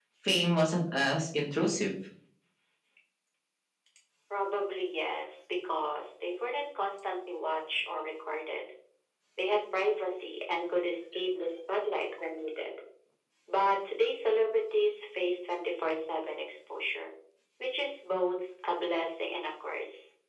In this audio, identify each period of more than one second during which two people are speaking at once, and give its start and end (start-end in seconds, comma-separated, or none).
none